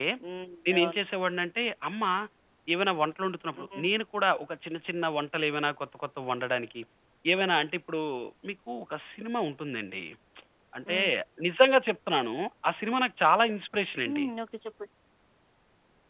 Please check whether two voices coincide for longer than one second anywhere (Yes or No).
No